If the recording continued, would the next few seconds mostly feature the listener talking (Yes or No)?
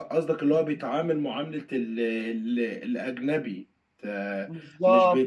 No